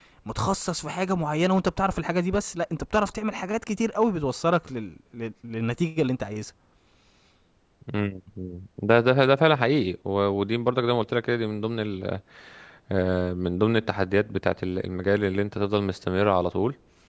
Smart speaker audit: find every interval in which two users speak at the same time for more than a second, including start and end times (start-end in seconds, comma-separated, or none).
none